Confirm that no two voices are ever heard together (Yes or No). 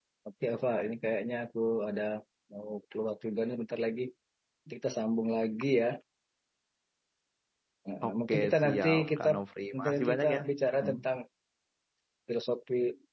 No